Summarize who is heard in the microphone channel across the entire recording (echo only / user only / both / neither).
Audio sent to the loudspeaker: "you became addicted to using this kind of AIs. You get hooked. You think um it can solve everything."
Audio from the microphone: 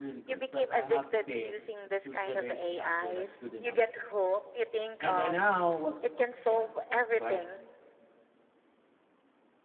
both